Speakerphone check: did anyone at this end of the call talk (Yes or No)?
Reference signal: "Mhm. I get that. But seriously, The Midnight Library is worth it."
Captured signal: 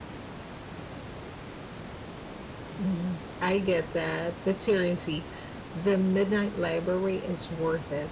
No